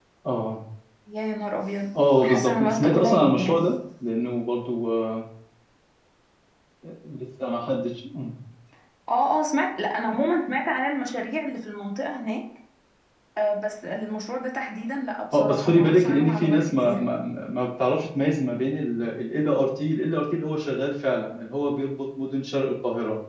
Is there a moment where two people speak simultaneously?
Yes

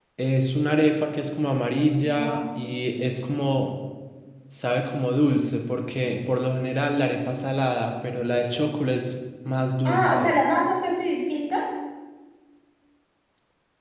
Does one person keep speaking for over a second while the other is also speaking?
No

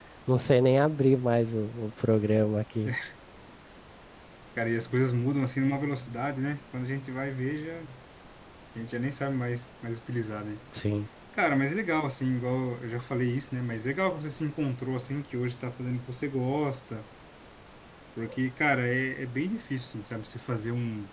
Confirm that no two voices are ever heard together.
Yes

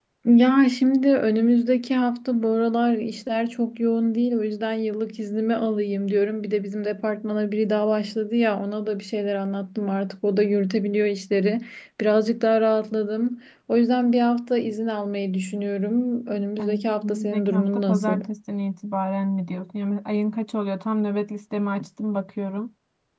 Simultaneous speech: Yes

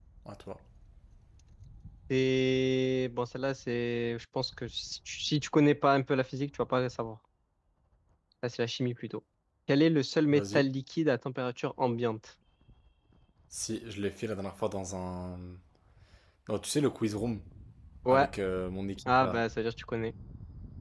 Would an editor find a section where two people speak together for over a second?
No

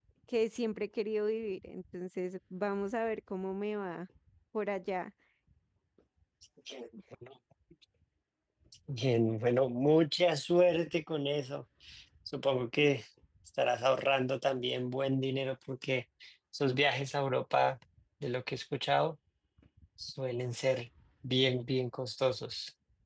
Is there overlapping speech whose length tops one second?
No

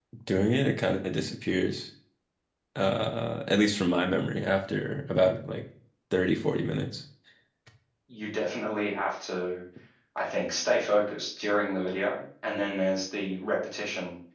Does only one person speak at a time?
Yes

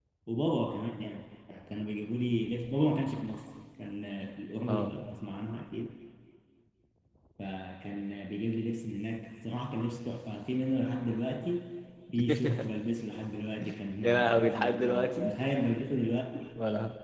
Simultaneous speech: Yes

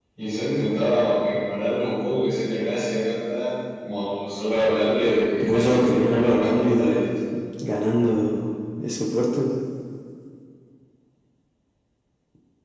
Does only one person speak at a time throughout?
No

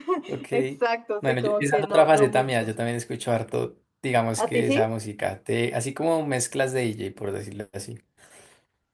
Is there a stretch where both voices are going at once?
Yes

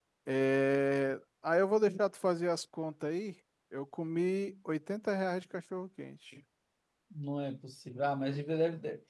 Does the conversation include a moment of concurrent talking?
No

